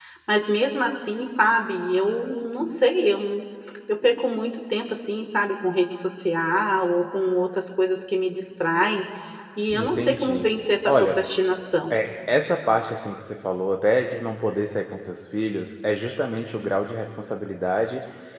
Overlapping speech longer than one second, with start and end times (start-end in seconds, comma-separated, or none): 9.7-11.2